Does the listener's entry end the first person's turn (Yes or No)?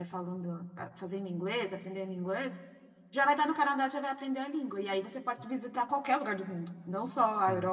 No